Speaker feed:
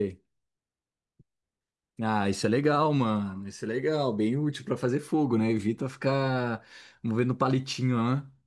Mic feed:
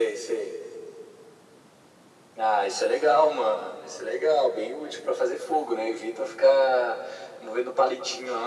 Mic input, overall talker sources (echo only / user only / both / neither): echo only